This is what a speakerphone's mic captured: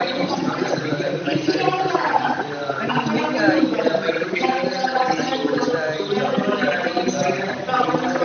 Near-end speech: present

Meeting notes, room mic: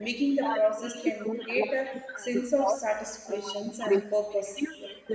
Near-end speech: present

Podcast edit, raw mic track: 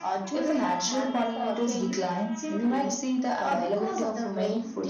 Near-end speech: none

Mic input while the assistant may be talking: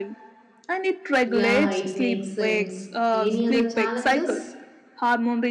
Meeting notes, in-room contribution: present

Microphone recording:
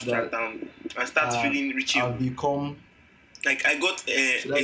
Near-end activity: present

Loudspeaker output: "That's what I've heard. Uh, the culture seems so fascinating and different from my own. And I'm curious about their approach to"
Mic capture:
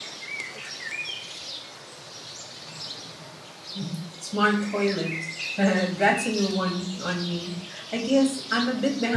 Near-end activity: present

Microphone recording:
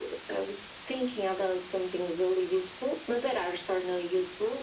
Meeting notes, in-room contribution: none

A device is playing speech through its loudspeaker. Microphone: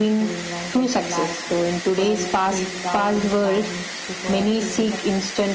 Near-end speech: present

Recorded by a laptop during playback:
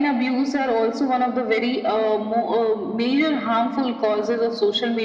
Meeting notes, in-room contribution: none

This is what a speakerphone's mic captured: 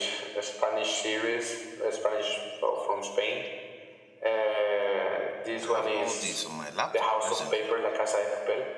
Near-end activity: present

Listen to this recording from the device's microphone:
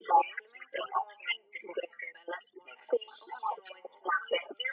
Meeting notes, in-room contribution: none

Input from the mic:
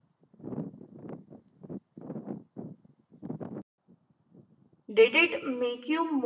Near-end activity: present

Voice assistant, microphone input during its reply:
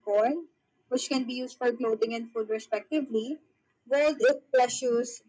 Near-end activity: none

